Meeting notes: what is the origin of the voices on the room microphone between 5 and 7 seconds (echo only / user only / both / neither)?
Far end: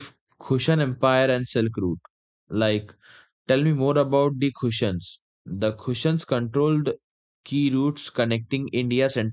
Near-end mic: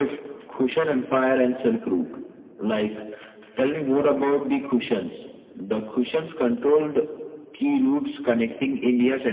echo only